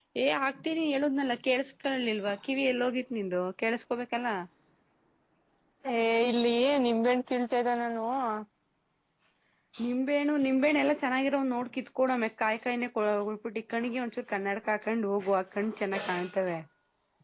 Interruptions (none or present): none